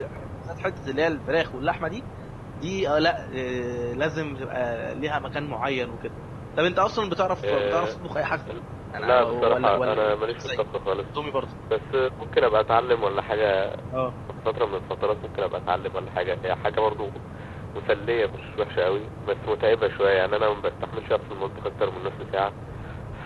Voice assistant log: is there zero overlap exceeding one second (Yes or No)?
No